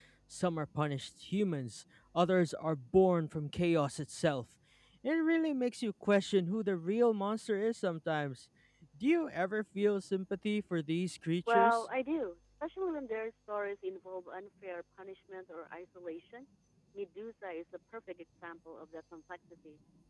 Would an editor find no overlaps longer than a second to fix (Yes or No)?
Yes